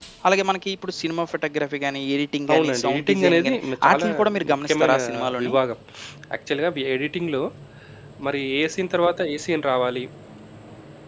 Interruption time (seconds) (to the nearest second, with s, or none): 2 s